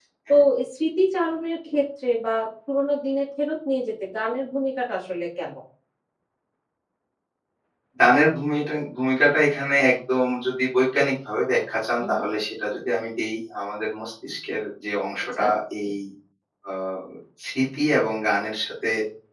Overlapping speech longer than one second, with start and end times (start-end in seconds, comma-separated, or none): none